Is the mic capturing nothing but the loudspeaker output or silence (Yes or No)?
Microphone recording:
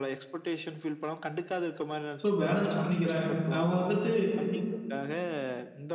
No